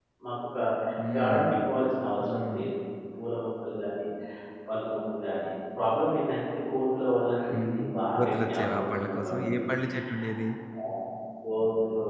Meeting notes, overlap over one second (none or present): present